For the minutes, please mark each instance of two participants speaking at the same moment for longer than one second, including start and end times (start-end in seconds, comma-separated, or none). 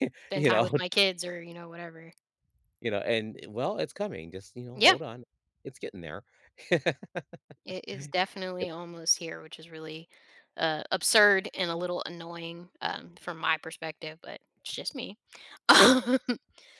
none